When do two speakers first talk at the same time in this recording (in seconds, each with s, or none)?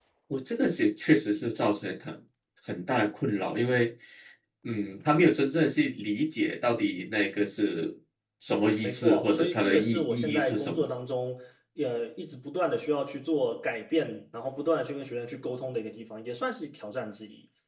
8.8 s